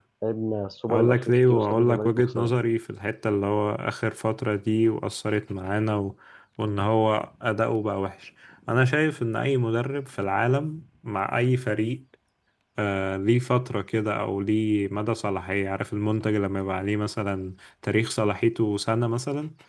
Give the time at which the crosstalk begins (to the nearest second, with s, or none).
1 s